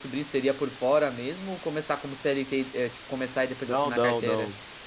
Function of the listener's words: taking over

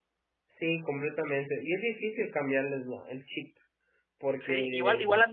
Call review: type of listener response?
taking over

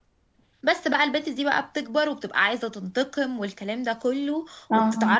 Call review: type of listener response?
listening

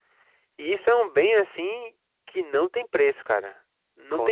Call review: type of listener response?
listening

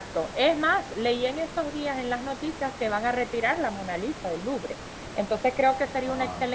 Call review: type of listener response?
listening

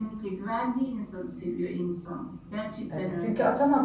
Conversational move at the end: taking over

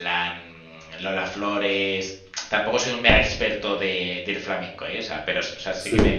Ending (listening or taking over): listening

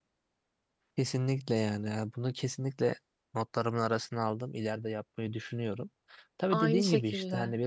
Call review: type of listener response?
listening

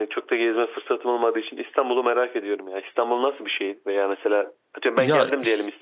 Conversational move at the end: listening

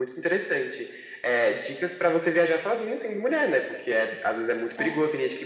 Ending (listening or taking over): listening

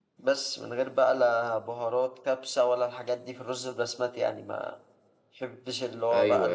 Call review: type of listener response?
listening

